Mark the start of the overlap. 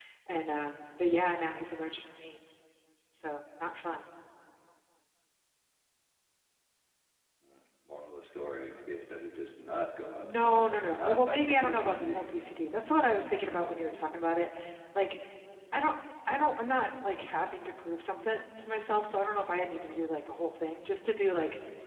10.2 s

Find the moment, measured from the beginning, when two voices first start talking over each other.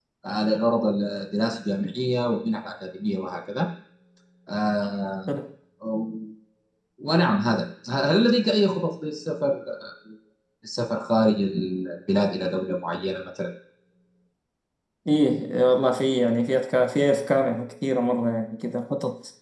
none

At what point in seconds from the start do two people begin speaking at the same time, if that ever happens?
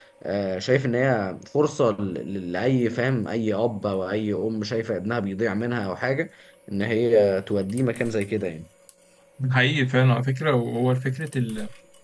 none

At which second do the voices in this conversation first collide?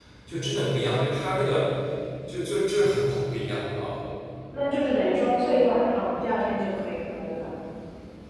none

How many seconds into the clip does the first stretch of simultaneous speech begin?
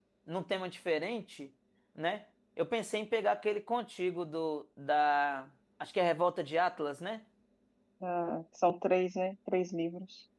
none

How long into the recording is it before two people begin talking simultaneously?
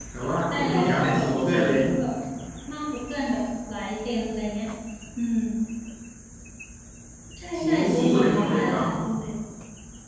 0.5 s

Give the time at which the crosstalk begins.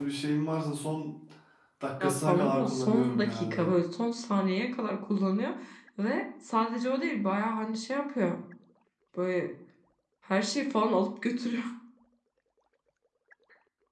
2.0 s

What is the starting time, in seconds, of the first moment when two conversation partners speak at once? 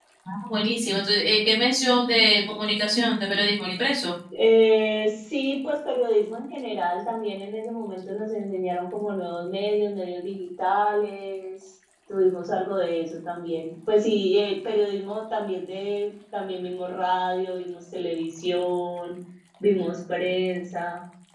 none

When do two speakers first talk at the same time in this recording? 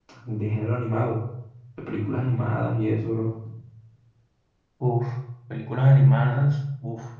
none

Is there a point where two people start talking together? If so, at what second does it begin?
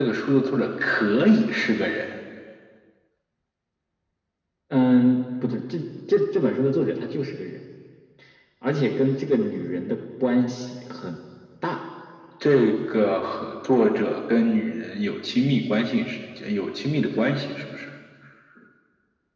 none

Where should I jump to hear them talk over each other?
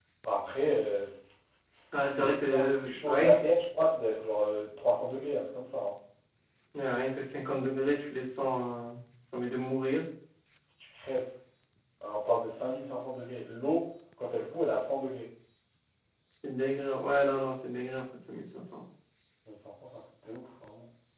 2.1 s

